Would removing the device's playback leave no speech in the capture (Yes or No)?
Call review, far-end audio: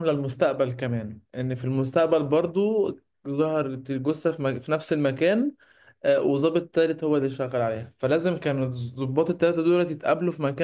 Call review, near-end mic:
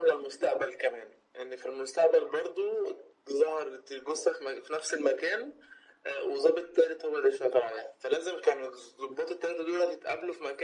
Yes